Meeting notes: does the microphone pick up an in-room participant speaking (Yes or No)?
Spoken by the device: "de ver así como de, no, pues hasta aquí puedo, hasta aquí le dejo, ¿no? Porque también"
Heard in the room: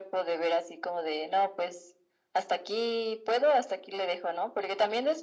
No